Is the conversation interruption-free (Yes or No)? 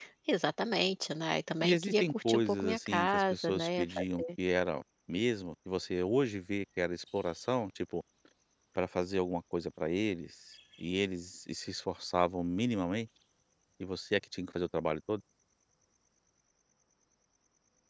No